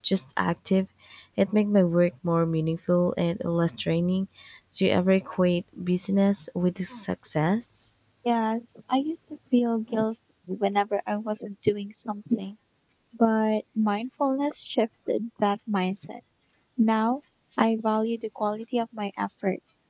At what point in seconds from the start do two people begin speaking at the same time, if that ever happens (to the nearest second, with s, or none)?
none